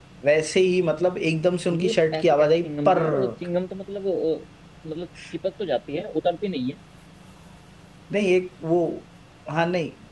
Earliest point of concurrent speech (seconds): 2 s

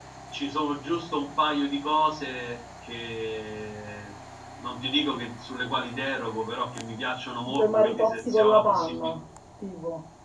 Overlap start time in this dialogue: 7 s

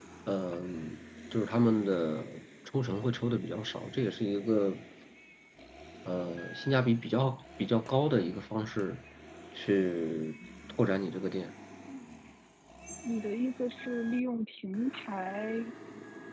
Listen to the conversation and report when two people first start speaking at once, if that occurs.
none

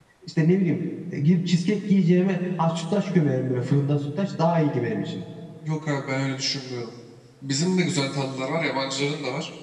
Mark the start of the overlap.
none

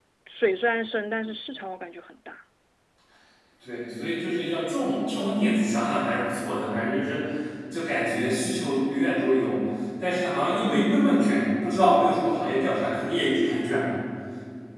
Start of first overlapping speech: none

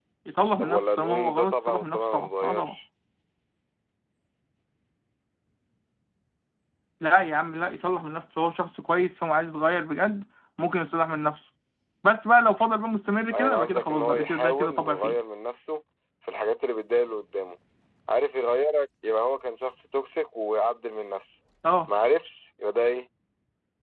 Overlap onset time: 1 s

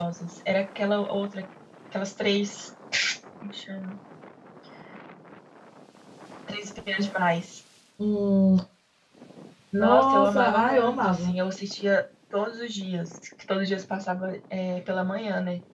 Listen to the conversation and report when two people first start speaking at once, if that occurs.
10 s

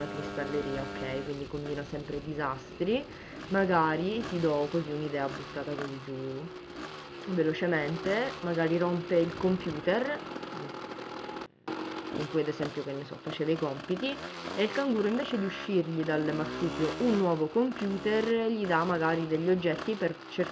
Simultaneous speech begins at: none

